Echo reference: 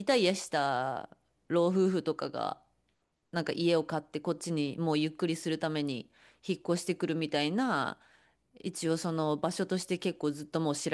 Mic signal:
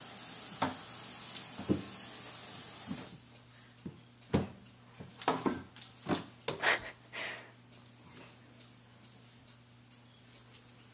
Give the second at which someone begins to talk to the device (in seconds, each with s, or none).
none